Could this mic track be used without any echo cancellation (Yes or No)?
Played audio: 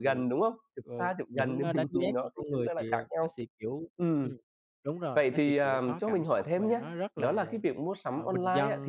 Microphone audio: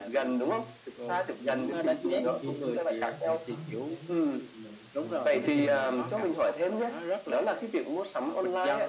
No